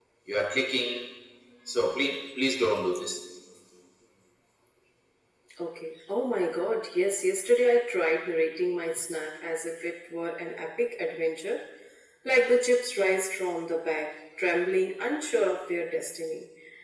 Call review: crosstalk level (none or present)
none